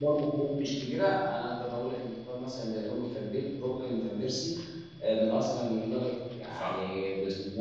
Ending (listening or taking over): listening